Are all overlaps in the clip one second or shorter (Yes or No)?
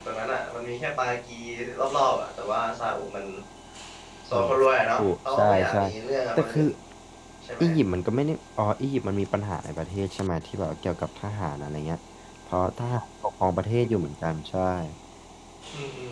No